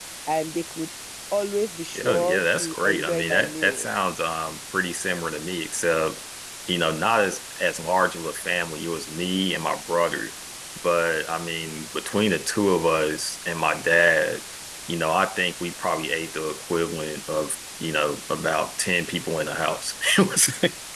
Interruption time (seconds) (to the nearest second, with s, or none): 2 s